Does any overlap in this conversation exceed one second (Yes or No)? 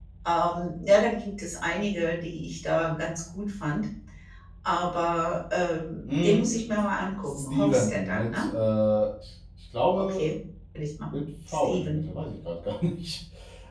Yes